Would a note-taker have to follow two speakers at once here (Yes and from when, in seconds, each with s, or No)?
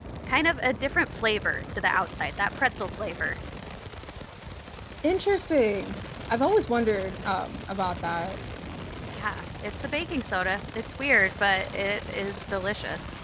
No